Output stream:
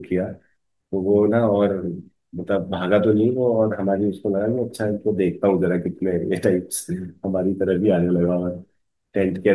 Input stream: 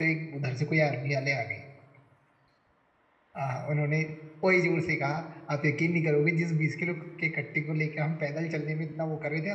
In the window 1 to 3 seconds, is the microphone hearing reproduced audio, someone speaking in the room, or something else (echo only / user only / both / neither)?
user only